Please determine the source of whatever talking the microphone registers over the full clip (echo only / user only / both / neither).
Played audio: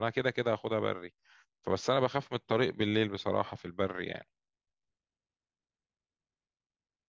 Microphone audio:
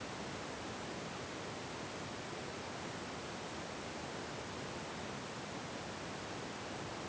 neither